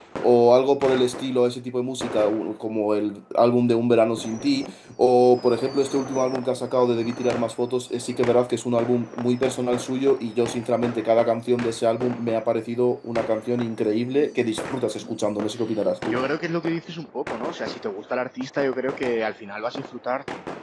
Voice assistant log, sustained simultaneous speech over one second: none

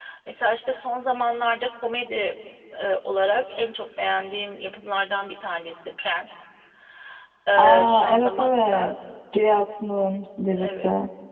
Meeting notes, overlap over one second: present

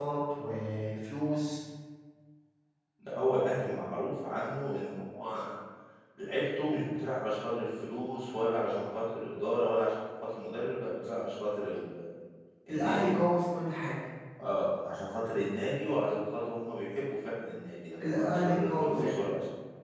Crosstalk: present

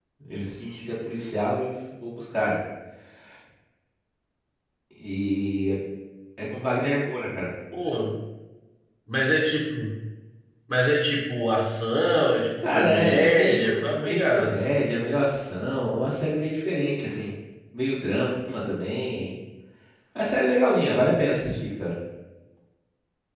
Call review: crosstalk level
present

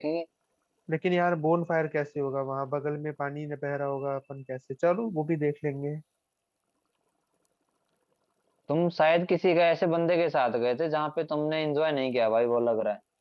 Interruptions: none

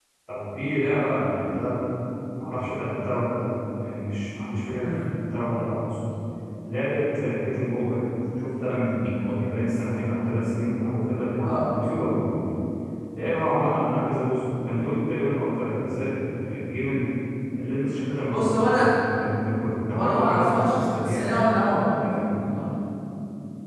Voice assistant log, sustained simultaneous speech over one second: present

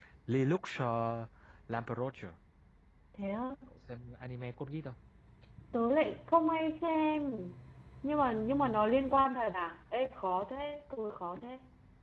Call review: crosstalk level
none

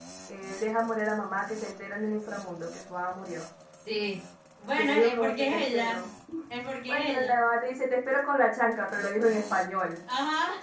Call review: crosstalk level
present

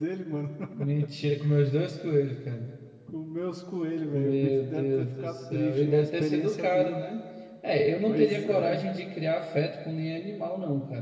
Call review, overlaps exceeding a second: present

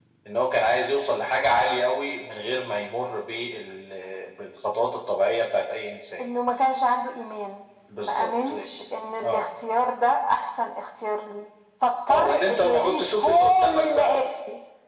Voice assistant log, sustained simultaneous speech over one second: present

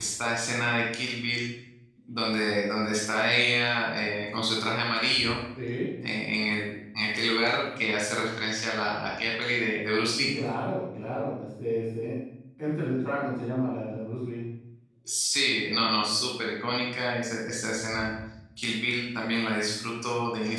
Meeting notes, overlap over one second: none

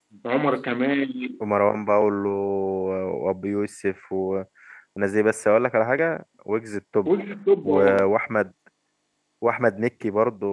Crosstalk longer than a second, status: none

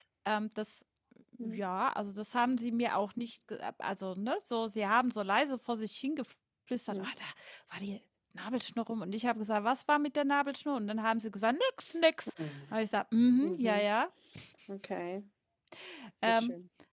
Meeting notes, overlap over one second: none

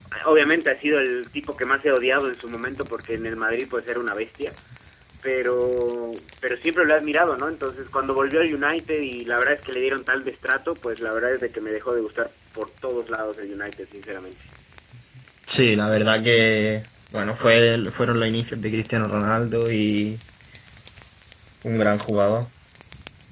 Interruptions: none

